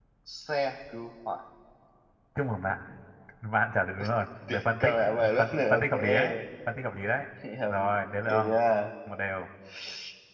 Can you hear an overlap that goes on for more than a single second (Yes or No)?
Yes